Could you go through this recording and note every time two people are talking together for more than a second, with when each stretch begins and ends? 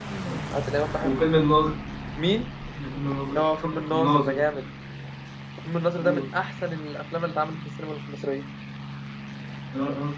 none

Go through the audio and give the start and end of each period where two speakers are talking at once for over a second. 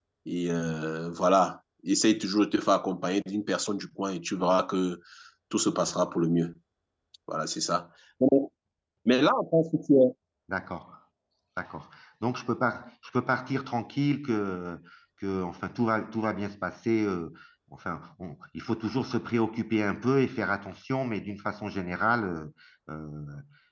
none

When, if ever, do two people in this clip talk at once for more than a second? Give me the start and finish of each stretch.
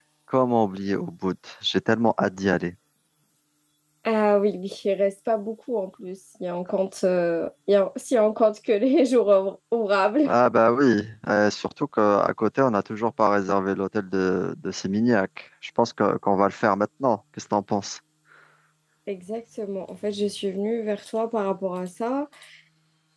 none

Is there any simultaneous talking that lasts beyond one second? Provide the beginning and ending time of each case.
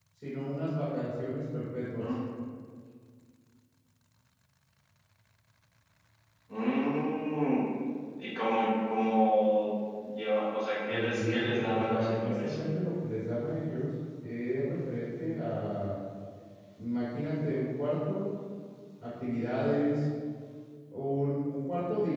10.9-12.6

